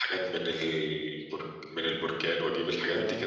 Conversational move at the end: taking over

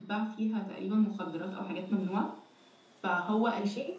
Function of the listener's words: listening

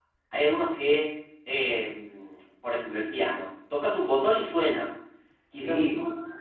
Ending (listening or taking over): listening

